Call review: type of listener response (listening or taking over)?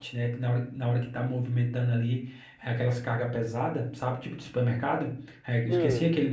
listening